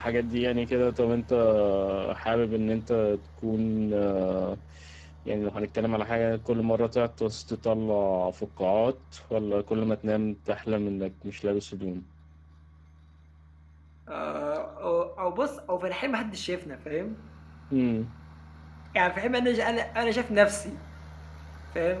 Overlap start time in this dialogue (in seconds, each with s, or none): none